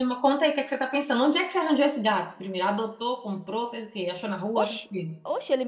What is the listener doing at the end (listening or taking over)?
taking over